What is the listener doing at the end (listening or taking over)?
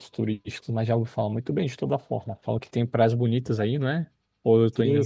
taking over